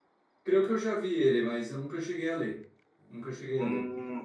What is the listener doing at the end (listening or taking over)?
taking over